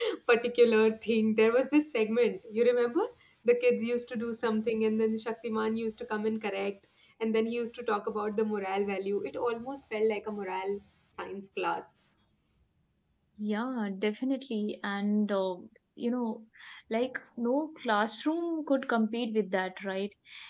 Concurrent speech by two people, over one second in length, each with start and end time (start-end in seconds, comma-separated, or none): none